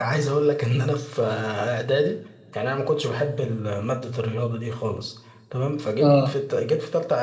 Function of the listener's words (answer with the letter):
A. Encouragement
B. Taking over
A